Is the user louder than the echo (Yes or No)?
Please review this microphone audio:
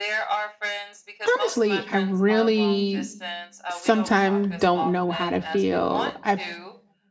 Yes